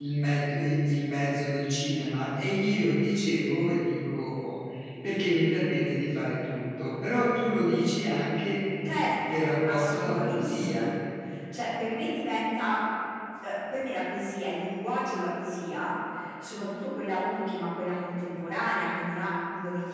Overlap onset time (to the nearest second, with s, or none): 9 s